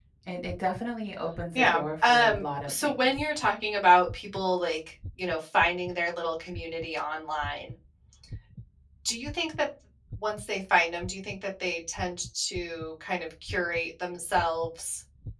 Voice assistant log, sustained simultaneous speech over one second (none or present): present